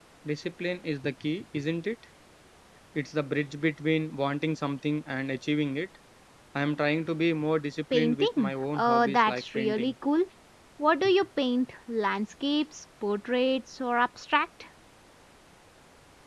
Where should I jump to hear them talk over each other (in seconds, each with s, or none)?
7.9 s